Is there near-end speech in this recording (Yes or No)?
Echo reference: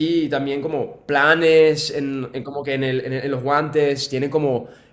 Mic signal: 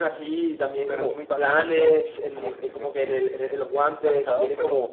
Yes